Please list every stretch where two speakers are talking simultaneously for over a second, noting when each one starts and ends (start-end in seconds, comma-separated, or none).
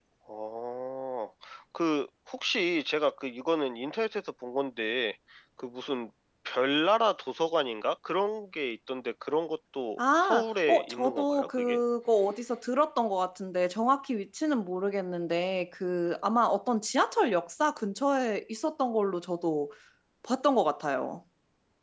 10.0-11.8